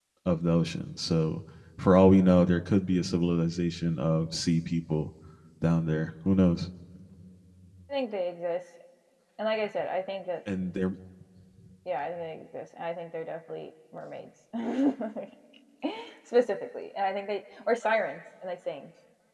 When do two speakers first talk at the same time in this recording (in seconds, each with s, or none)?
none